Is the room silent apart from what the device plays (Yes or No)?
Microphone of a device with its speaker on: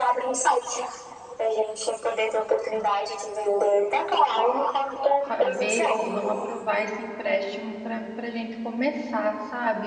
No